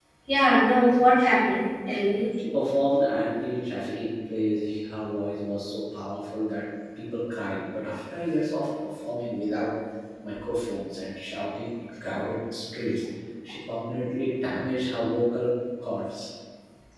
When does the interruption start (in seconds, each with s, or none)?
none